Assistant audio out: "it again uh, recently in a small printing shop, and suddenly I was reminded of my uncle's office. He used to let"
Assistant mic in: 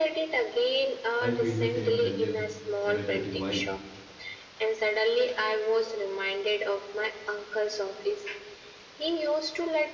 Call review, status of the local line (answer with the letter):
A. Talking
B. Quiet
A